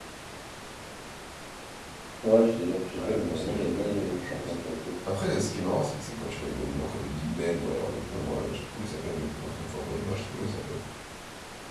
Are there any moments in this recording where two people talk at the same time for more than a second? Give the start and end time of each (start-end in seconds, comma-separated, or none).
2.9-4.6